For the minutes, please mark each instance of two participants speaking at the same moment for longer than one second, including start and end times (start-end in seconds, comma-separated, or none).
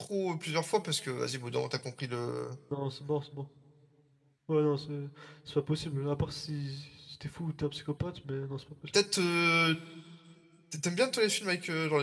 none